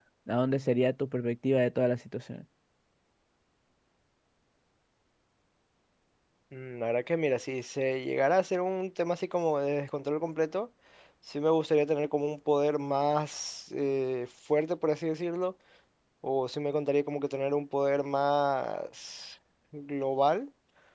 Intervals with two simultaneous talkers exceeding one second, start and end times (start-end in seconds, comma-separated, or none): none